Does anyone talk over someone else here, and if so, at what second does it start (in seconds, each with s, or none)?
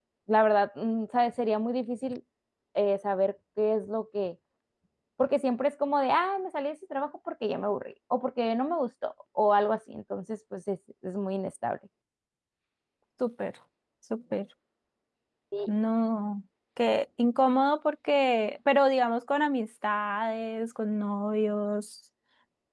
none